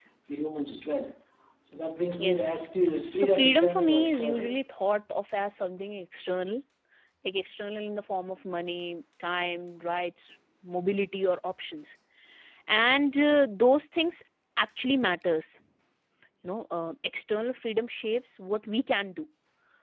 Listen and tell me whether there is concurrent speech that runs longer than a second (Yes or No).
Yes